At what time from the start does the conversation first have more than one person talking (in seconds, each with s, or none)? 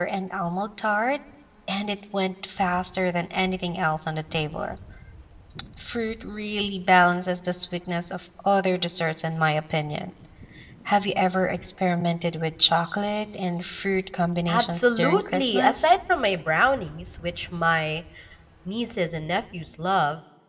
14.5 s